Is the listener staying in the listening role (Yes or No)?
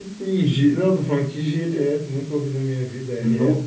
No